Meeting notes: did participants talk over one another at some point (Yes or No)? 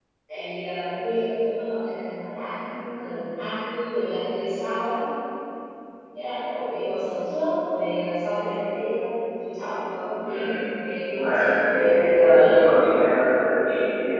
Yes